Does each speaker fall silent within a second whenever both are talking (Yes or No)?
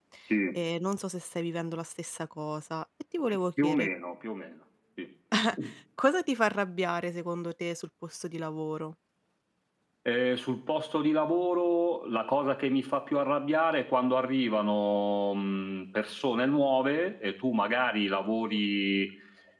Yes